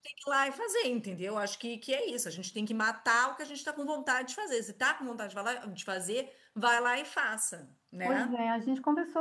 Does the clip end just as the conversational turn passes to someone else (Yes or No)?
Yes